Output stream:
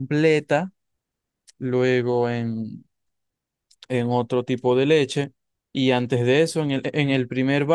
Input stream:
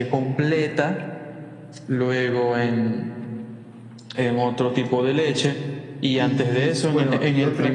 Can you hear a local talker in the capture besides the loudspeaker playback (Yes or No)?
Yes